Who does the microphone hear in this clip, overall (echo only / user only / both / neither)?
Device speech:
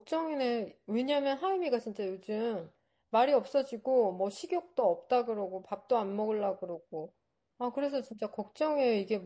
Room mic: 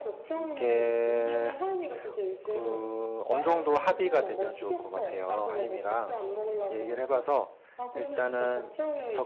both